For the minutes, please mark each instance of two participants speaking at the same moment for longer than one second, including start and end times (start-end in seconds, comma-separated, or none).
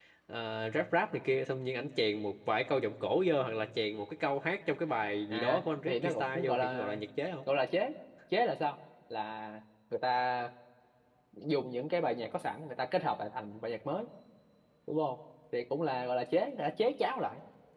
5.3-7.0